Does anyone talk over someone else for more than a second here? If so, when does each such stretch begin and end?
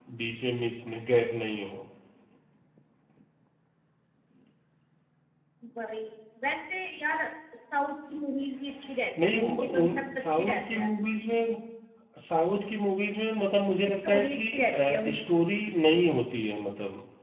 9.2-10.9, 14.0-15.4

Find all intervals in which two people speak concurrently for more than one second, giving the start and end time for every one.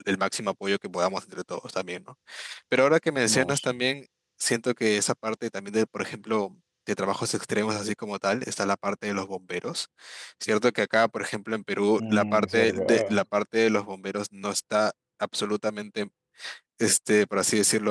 12.0-13.2

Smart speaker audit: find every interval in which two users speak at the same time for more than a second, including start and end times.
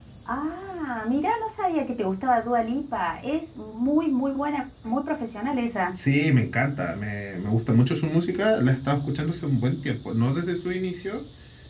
none

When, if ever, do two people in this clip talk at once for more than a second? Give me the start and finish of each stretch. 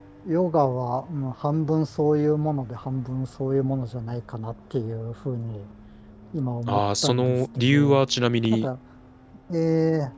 6.7-8.0

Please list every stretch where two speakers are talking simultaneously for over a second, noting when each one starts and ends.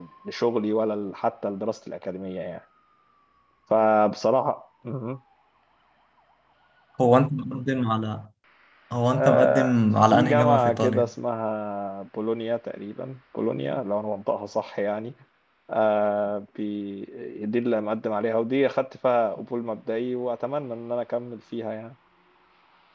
9.1-11.1

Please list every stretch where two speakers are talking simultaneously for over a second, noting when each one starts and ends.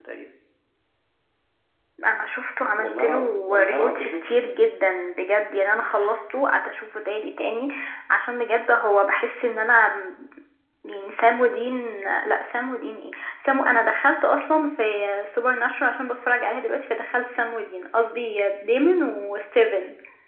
2.8-4.2

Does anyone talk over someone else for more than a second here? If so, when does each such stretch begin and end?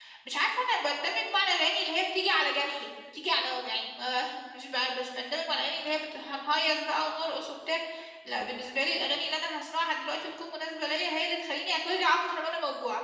none

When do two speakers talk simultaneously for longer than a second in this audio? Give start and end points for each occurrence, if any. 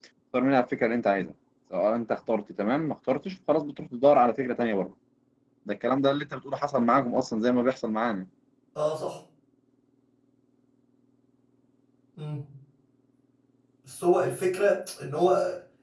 none

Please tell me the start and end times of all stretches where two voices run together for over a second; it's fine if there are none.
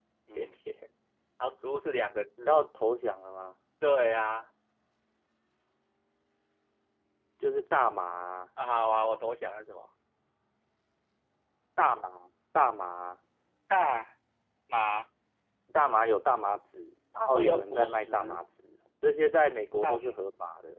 17.1-18.4

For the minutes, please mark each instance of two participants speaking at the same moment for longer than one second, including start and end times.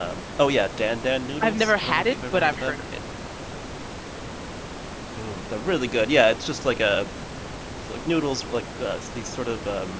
1.4-2.8

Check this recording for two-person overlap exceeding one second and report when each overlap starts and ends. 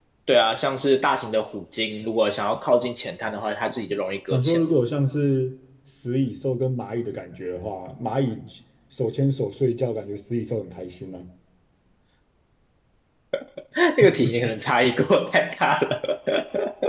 none

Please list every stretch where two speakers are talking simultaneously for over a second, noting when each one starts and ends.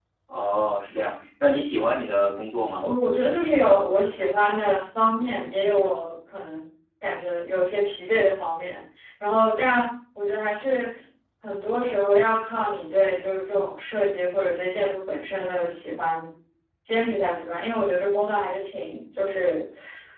none

